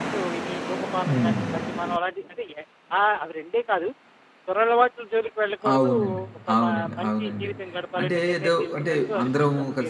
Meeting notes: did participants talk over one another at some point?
Yes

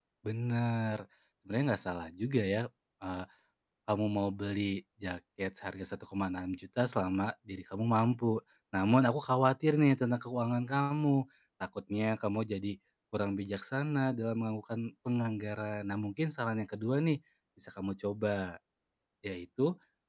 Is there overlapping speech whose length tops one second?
No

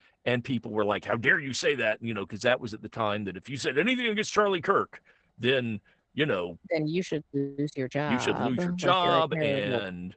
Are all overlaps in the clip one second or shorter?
No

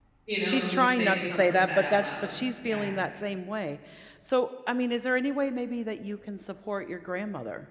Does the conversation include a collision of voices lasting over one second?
Yes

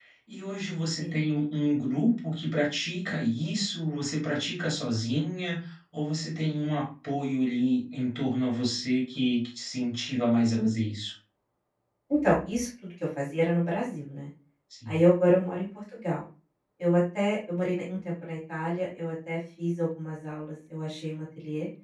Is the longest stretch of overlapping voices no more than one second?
Yes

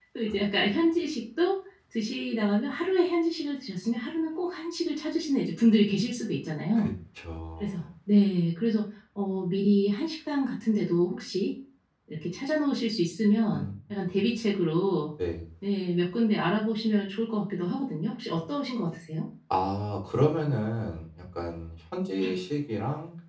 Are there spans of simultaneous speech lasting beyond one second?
No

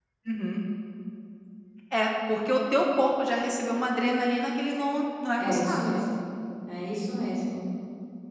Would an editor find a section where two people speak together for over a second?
No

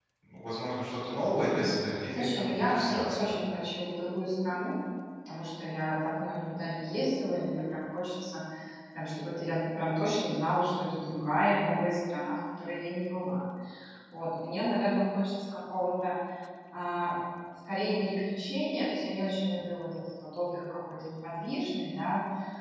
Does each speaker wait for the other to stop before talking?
No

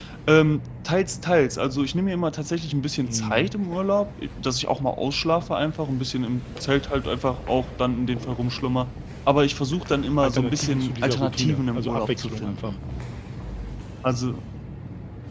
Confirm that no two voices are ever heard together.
No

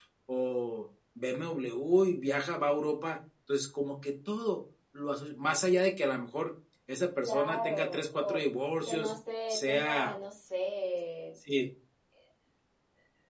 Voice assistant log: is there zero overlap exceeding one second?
No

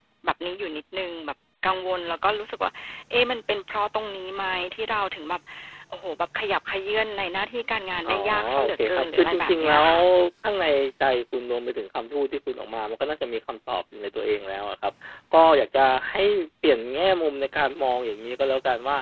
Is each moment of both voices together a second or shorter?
No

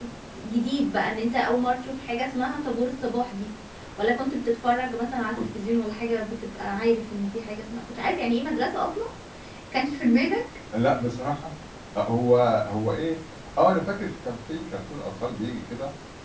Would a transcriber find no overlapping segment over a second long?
Yes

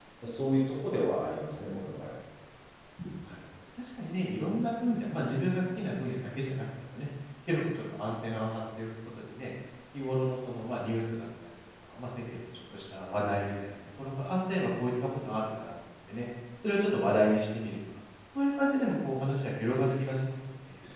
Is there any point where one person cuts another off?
No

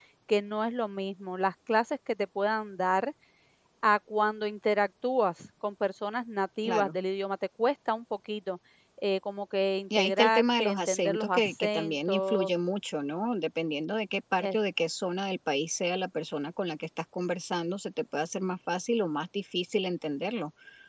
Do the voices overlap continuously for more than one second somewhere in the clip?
Yes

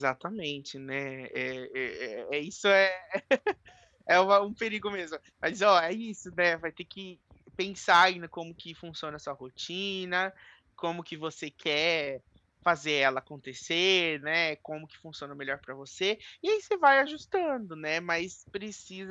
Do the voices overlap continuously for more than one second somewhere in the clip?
No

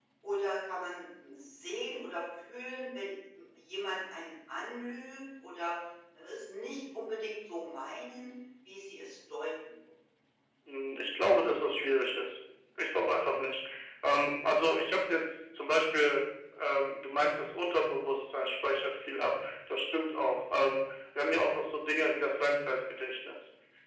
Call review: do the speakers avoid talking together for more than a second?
Yes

